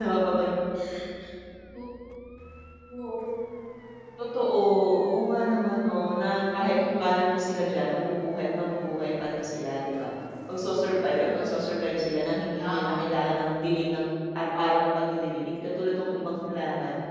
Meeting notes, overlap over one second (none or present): none